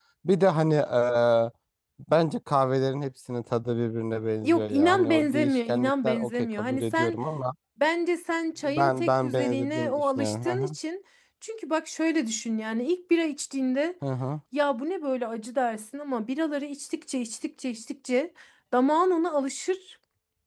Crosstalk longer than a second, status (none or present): present